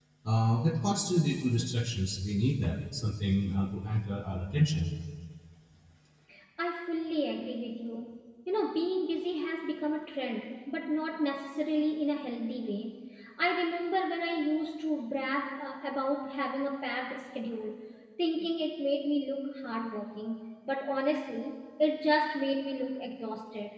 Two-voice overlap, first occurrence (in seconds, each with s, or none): none